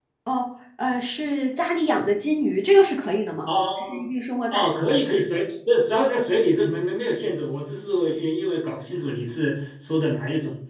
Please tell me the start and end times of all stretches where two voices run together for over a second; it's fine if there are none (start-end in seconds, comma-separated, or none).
none